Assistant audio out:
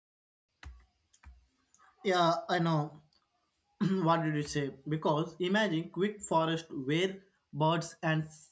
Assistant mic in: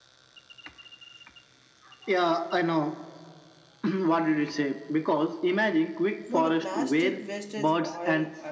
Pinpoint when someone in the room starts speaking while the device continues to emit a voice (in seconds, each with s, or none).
6.3 s